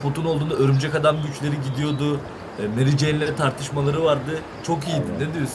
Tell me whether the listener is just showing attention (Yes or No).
No